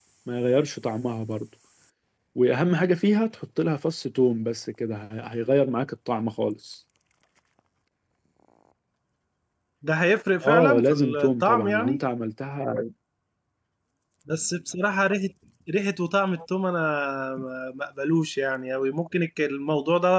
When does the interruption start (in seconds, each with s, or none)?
10.4 s